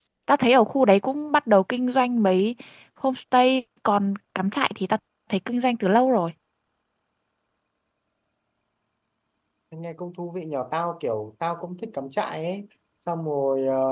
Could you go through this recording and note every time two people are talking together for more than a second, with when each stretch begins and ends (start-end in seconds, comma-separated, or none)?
none